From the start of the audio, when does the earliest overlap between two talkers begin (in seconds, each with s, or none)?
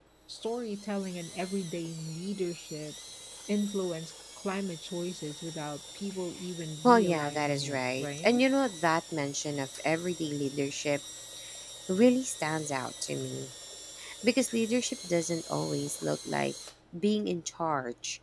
6.8 s